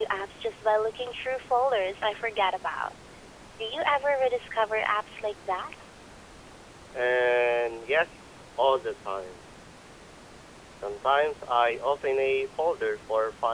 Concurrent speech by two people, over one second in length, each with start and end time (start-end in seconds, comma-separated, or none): none